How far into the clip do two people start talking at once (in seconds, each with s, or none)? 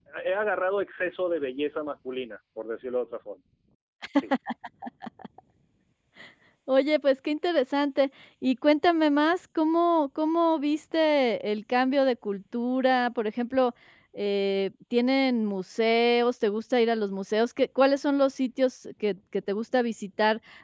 none